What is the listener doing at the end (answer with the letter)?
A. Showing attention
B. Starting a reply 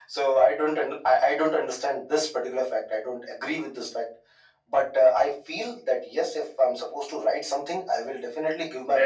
B